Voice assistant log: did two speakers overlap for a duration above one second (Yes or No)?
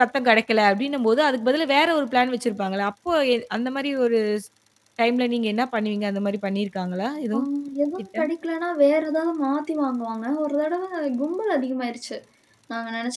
No